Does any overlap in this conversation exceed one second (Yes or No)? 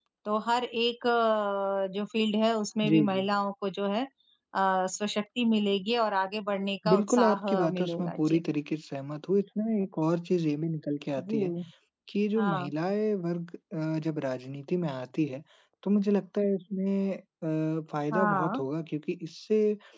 Yes